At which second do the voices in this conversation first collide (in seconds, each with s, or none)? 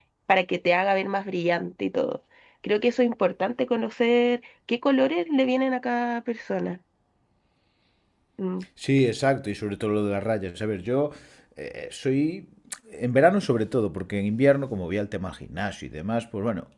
none